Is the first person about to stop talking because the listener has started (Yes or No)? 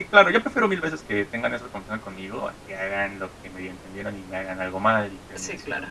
Yes